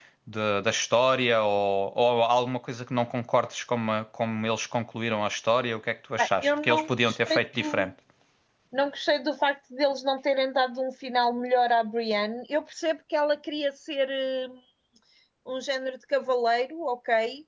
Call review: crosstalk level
present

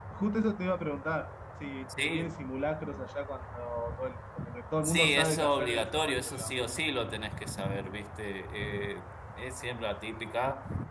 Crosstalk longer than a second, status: present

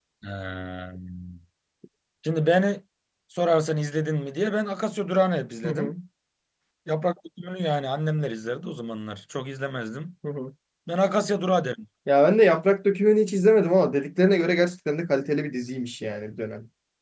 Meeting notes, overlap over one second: none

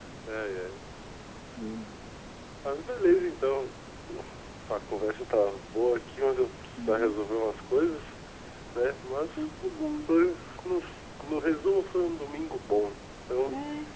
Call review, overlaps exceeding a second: none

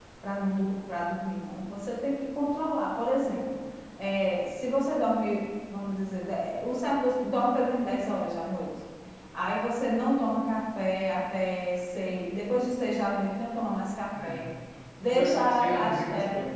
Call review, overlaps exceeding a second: present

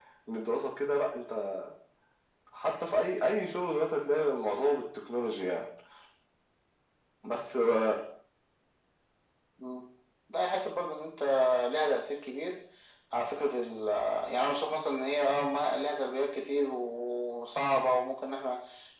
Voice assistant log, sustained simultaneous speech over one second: none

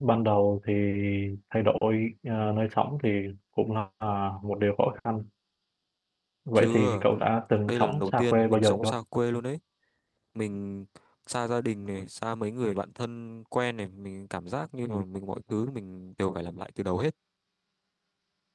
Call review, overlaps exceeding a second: present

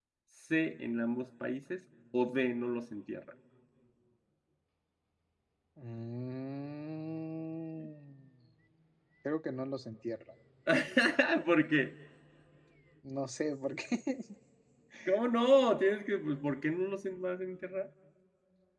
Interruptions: none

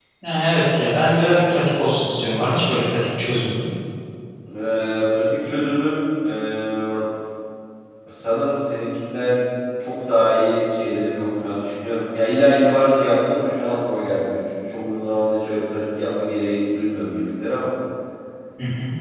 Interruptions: none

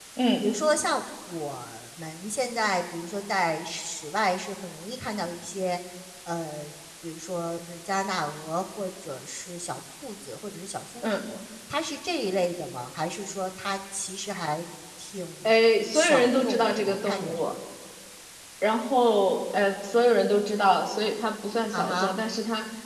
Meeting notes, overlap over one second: present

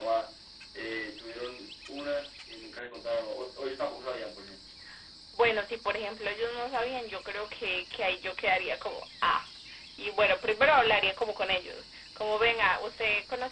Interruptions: none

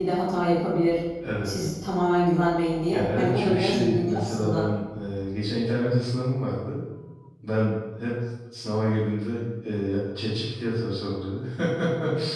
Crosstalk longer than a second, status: present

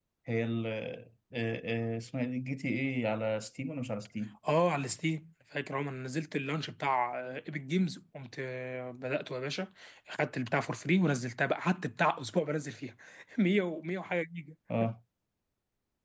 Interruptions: none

